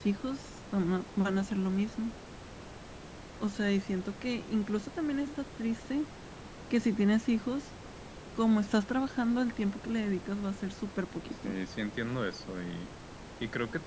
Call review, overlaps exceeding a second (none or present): none